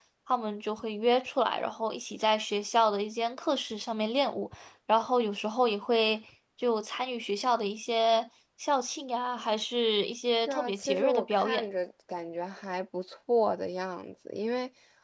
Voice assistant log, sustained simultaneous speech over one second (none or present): present